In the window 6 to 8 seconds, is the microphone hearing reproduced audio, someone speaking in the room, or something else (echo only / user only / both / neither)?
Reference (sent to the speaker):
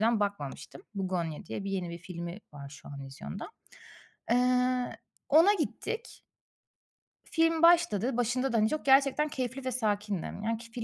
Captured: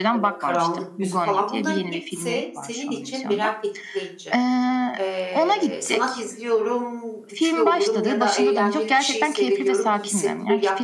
both